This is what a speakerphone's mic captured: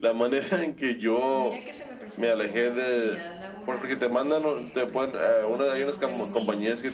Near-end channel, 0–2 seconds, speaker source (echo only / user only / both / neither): both